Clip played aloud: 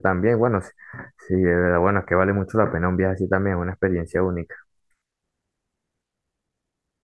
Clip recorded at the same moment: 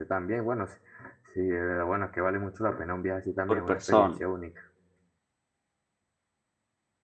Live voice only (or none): por persona.